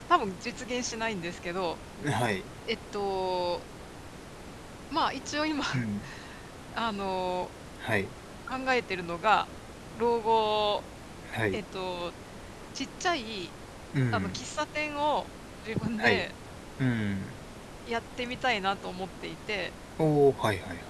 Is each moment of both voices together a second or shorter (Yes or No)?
Yes